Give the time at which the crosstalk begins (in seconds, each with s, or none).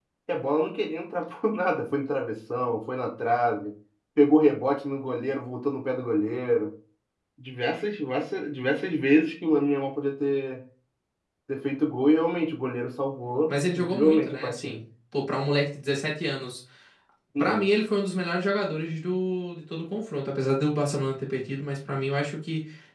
13.5 s